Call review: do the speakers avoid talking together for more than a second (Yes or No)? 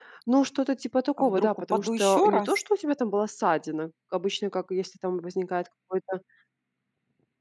No